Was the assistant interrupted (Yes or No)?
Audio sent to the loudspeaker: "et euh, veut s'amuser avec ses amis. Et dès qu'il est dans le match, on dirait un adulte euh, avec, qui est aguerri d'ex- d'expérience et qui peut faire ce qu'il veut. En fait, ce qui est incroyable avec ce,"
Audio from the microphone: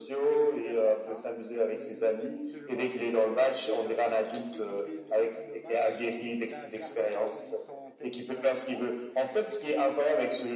Yes